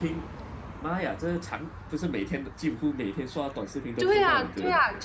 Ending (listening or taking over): taking over